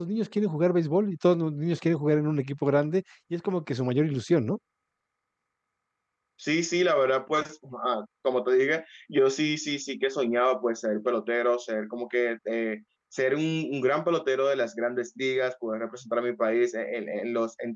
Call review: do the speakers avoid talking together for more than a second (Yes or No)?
Yes